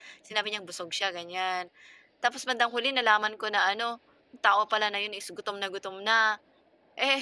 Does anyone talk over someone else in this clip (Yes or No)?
No